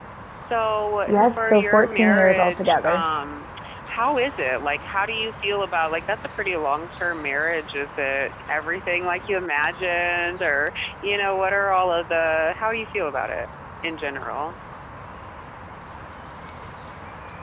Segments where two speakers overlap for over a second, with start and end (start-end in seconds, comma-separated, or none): 1.1-3.0